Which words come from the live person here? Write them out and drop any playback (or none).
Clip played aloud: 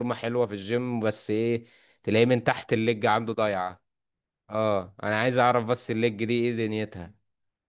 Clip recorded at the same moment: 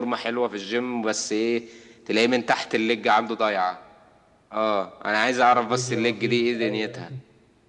أيوة، الرجل مفيش ايوه